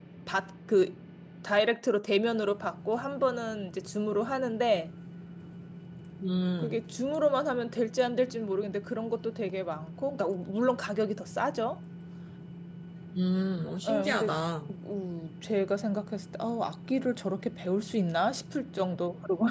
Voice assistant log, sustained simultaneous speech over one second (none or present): none